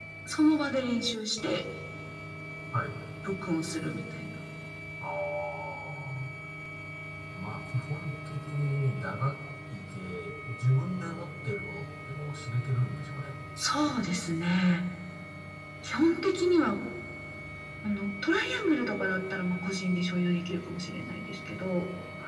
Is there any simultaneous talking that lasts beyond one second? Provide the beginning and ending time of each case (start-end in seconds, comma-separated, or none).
none